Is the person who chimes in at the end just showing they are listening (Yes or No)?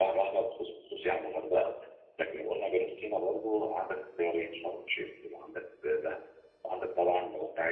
Yes